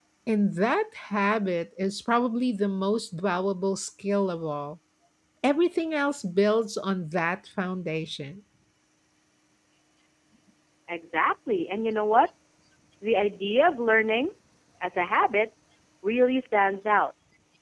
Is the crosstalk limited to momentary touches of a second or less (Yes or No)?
Yes